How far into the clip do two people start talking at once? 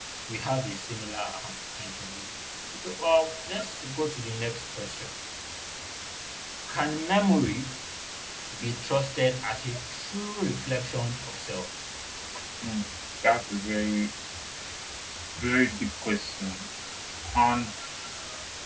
none

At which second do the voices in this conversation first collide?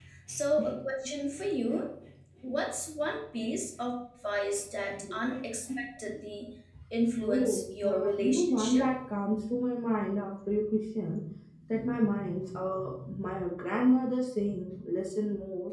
7.2 s

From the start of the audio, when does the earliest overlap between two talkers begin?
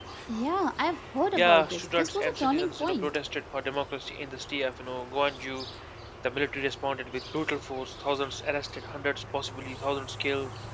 1.3 s

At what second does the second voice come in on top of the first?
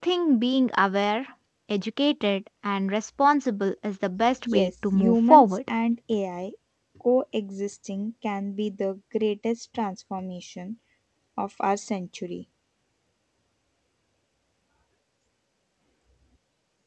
4.5 s

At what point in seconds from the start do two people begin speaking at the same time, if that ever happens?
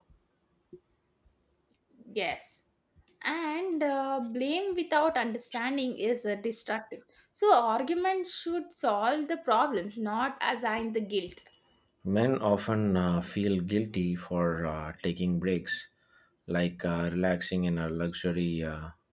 none

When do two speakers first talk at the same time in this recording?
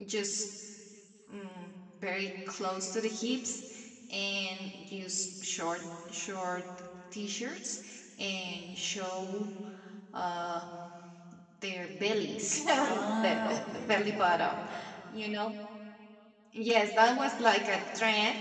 12.8 s

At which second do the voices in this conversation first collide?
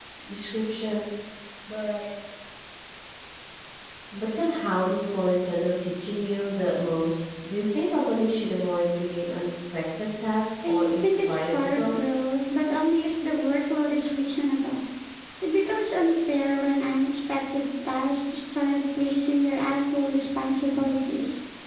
10.6 s

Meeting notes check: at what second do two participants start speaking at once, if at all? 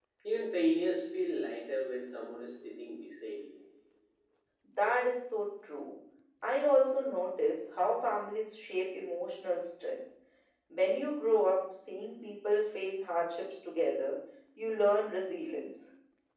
none

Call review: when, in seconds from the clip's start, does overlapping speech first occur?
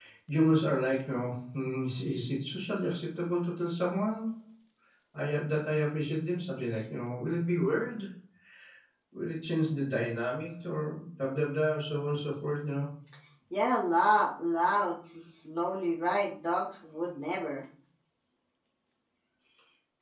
none

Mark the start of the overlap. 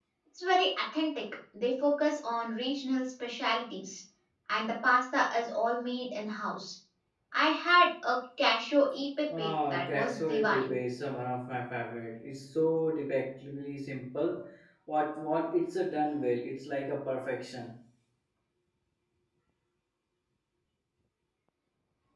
9.3 s

